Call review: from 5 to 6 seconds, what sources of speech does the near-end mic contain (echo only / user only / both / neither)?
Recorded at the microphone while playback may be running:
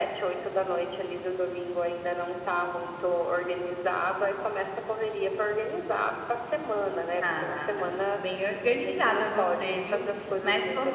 echo only